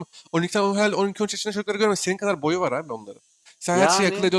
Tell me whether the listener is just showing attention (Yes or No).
Yes